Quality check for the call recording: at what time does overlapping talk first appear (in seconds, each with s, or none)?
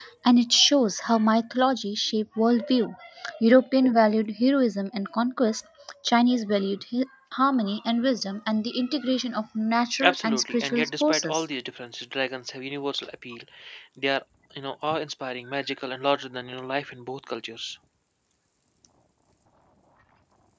10.0 s